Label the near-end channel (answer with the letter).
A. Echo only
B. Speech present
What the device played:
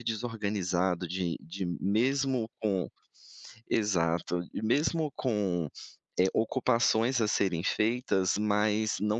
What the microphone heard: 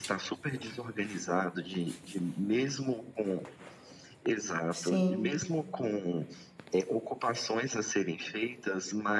B